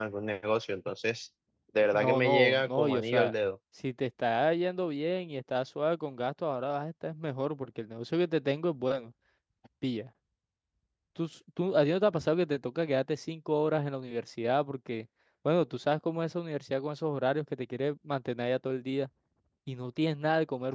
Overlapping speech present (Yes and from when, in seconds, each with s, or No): Yes, from 1.9 s